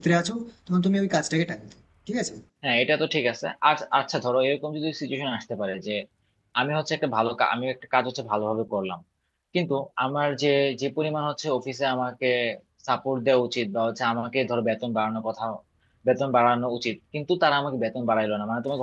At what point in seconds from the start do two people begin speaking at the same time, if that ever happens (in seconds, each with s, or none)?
none